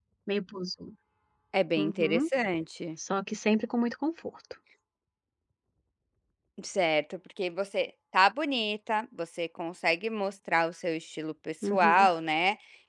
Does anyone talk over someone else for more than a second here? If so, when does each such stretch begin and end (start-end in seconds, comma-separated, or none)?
none